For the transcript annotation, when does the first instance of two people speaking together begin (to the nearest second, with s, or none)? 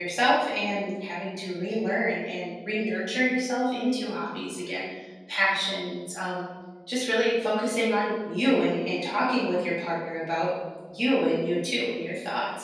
none